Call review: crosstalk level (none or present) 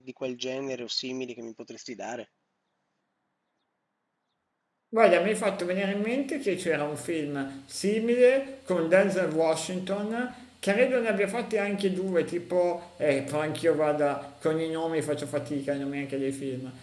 none